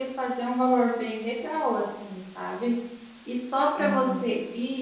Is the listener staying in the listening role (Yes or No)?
Yes